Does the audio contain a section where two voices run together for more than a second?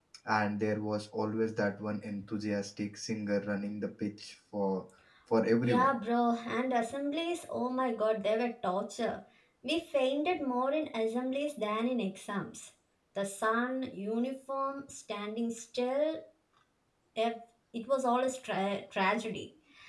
No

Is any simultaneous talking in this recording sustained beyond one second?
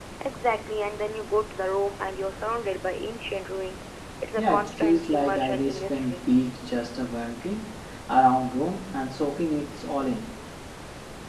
Yes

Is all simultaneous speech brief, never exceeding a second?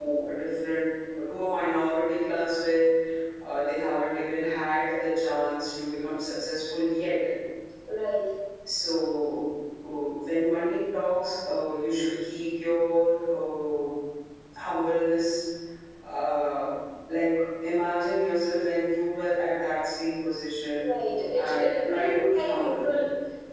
No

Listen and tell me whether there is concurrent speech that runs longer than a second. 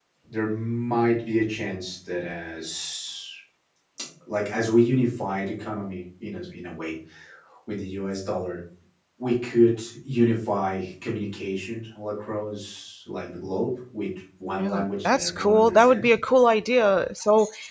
Yes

